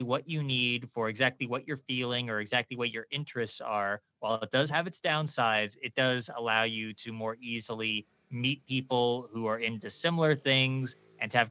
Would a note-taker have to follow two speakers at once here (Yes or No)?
No